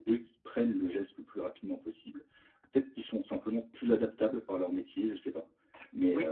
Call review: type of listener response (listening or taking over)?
taking over